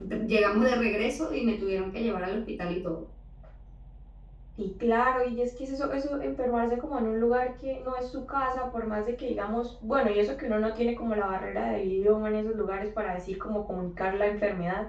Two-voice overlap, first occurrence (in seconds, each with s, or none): none